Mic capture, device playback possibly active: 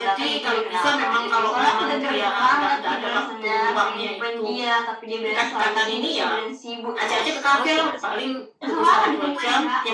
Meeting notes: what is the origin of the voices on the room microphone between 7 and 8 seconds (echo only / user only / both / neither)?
both